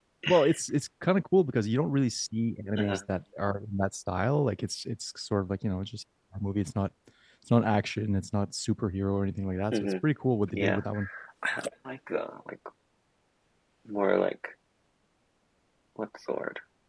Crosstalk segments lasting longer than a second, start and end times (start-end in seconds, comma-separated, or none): none